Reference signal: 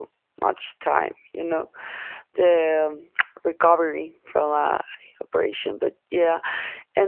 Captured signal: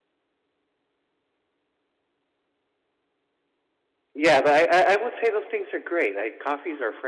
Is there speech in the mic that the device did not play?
Yes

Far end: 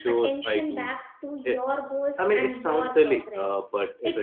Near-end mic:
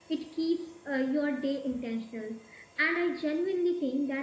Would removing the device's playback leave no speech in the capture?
No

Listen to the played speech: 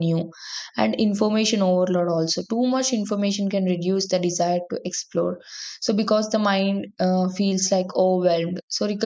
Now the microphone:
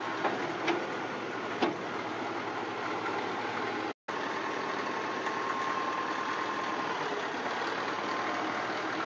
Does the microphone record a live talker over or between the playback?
No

